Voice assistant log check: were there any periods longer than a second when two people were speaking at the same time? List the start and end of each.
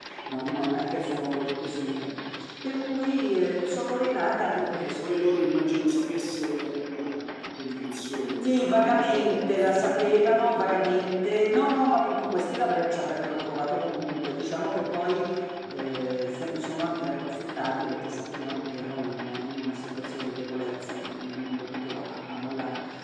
8.4-11.0

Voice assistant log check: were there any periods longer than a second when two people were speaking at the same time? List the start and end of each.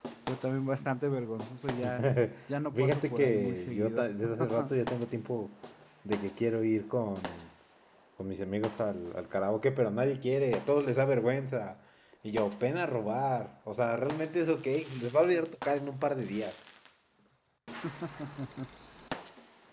2.7-4.0

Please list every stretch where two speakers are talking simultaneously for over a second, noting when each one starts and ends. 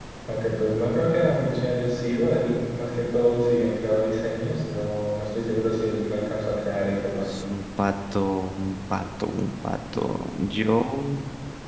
none

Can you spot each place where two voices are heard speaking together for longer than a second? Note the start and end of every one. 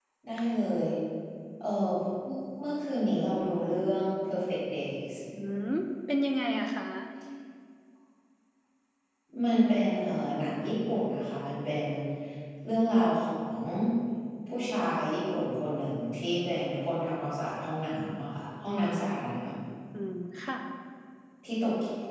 none

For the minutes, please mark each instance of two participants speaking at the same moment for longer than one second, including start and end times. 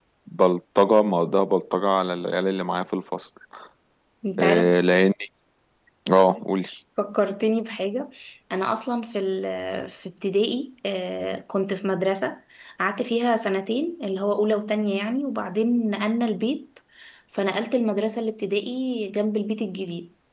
none

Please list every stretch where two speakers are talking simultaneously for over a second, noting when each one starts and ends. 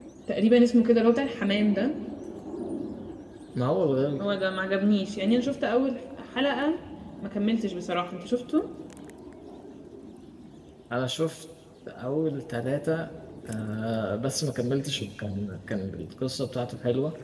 none

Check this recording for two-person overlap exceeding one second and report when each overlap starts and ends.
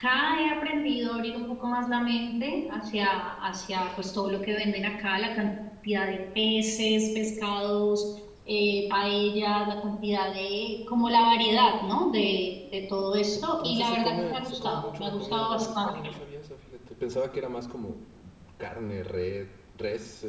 13.3-16.0

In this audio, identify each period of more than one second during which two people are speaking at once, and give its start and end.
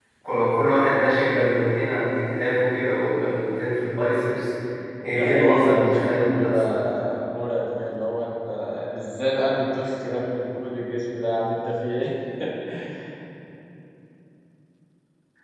5.1-6.6

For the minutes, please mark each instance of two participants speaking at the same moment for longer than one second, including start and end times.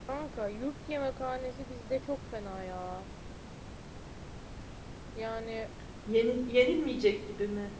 none

